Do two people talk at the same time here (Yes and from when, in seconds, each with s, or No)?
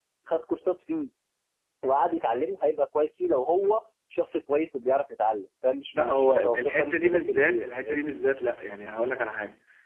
Yes, from 5.9 s